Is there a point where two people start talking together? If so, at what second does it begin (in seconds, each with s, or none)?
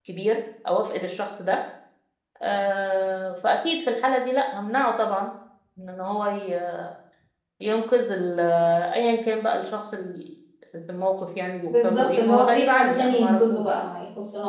11.7 s